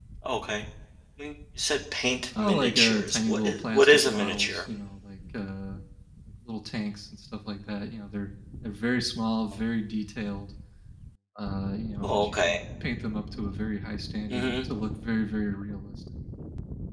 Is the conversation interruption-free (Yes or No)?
No